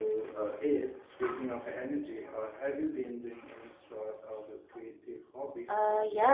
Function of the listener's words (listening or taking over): taking over